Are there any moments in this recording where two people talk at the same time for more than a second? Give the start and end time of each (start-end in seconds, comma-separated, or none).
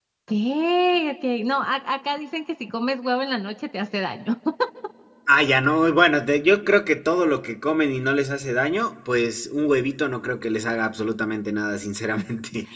none